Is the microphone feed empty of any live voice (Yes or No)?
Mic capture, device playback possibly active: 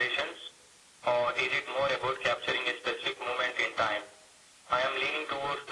Yes